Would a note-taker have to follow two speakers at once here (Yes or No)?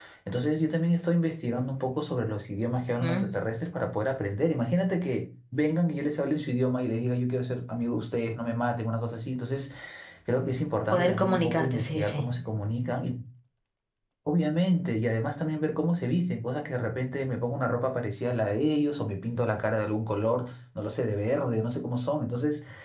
Yes